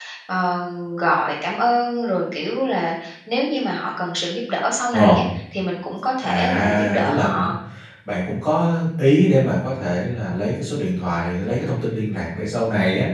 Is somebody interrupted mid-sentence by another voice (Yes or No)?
Yes